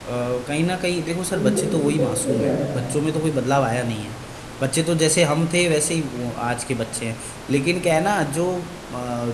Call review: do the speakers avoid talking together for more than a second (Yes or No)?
No